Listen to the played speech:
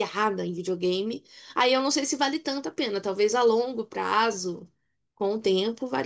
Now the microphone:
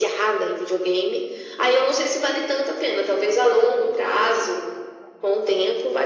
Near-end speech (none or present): none